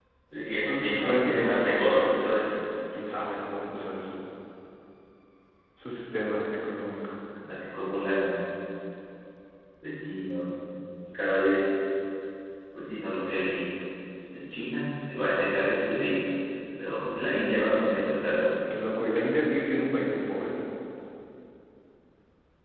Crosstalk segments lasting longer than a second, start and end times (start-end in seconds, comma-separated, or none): 0.9-2.5